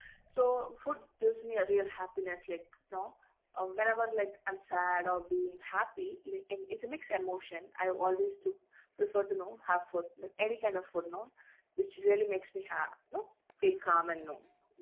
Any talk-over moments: No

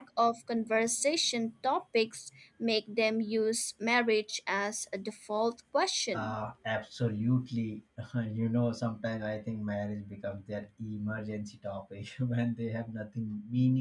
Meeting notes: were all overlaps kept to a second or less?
Yes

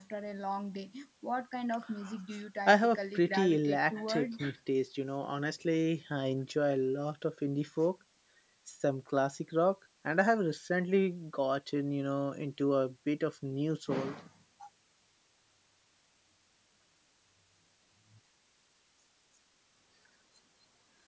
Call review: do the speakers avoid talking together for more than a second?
No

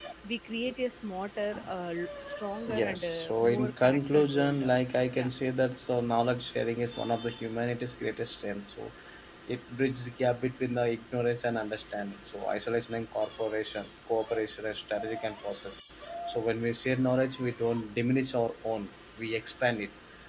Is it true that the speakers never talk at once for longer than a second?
No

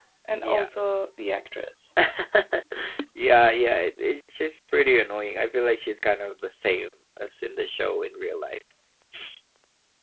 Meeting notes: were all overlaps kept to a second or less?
Yes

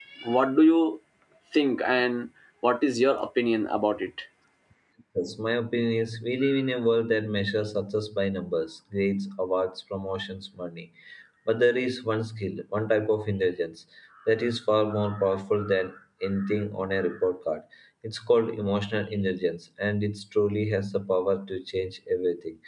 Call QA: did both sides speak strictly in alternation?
Yes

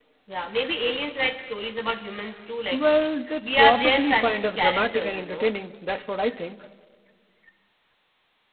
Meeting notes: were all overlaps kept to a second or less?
No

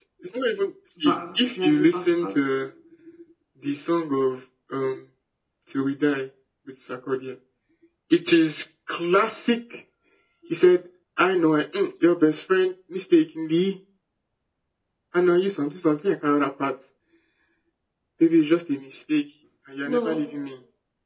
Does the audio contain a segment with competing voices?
Yes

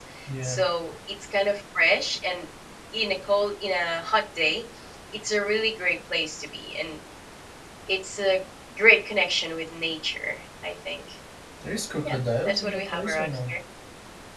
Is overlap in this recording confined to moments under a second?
No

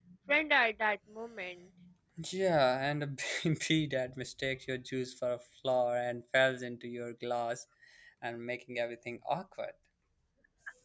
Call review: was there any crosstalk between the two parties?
No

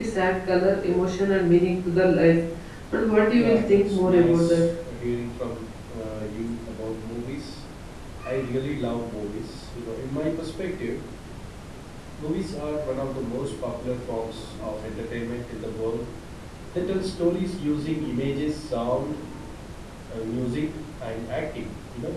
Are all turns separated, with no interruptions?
No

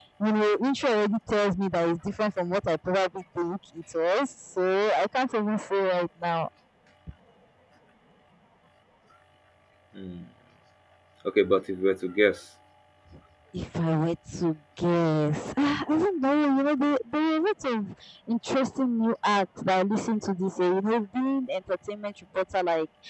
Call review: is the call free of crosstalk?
Yes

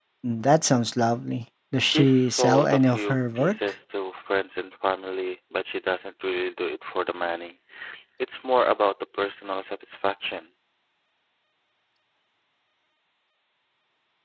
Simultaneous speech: Yes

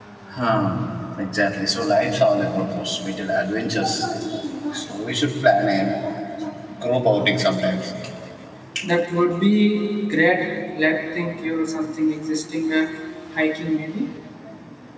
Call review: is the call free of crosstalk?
Yes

